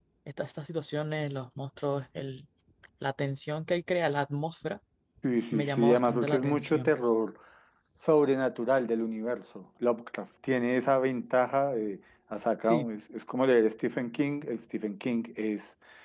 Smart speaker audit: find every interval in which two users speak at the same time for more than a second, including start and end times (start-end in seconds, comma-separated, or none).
5.5-6.9